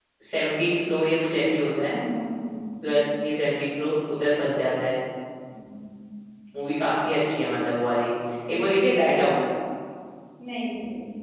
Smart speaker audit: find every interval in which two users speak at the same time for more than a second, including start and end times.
none

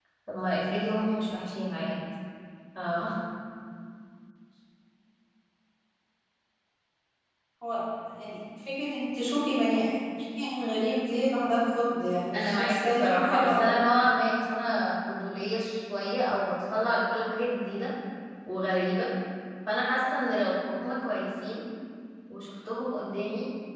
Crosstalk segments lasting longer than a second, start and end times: 12.3-13.7

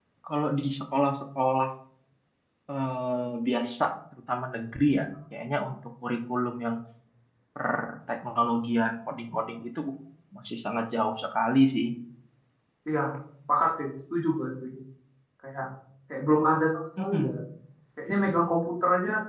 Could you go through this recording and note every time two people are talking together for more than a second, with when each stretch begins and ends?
none

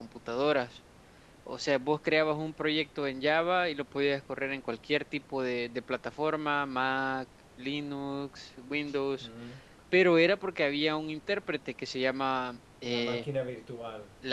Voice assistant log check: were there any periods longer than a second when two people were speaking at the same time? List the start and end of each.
none

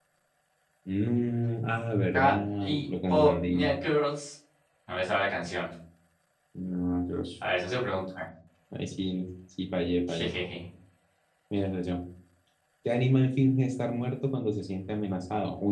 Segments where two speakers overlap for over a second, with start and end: 2.1-3.7

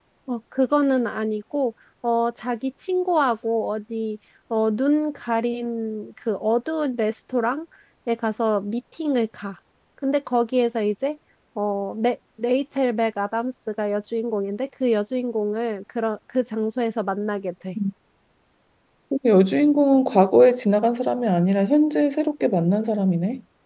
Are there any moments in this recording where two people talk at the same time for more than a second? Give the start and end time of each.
none

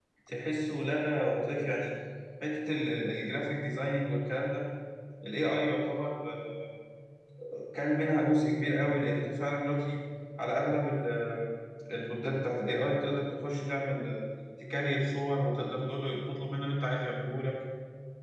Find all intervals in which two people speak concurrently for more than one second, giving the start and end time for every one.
none

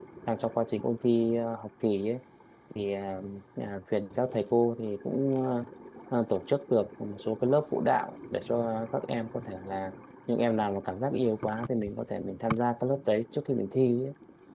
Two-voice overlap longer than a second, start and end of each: none

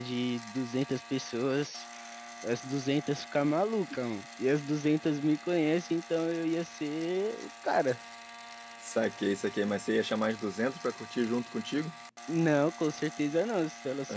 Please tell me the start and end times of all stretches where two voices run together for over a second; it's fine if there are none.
none

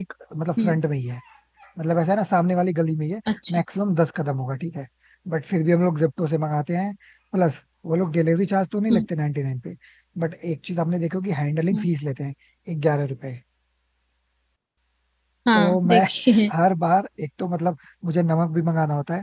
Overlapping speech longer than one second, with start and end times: none

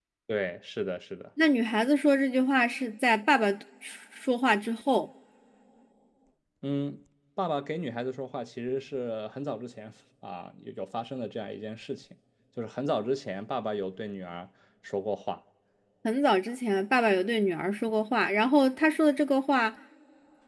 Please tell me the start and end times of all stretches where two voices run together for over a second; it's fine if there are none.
none

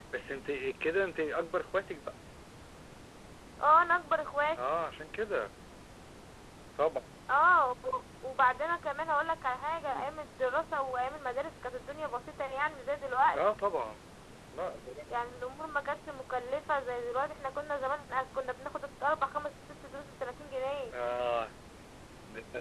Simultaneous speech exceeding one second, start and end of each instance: none

